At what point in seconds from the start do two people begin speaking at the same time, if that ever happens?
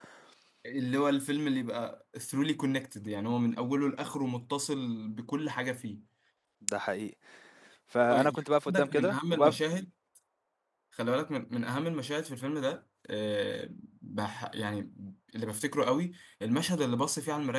8.1 s

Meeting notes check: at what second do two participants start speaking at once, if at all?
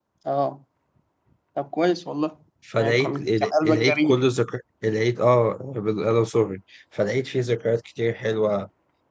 2.7 s

